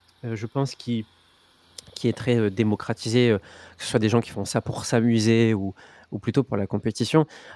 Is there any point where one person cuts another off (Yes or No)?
No